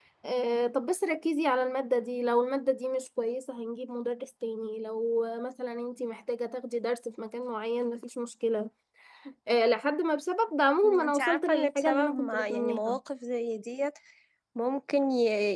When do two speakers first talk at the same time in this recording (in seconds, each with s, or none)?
10.8 s